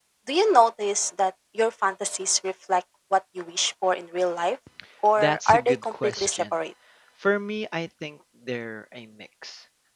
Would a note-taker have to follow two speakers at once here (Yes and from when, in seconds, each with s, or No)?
Yes, from 5.2 s